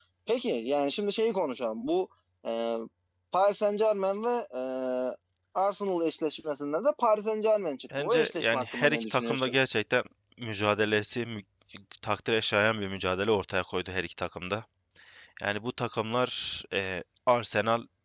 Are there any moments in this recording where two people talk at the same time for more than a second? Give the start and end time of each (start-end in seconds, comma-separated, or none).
8.0-9.6